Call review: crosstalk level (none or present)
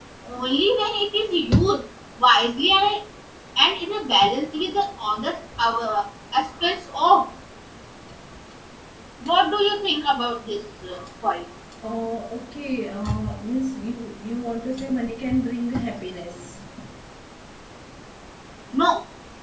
none